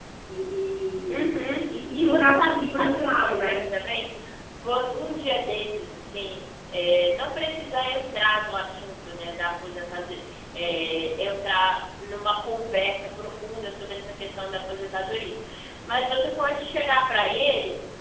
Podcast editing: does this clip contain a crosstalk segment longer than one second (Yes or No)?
Yes